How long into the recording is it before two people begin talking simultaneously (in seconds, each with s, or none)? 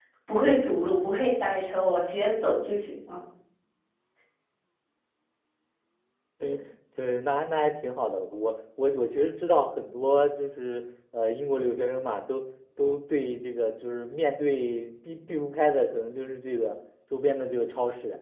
none